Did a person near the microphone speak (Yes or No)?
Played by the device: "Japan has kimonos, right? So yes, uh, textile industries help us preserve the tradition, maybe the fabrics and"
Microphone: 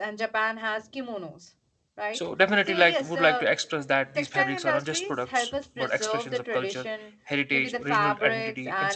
Yes